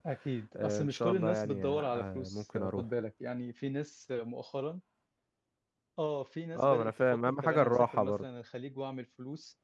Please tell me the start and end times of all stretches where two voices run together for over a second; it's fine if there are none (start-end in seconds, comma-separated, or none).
0.6-2.9, 6.5-8.2